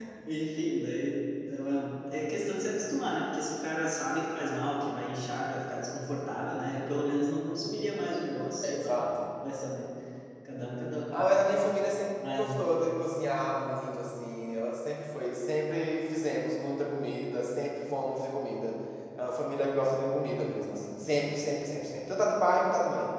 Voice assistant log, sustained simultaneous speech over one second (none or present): none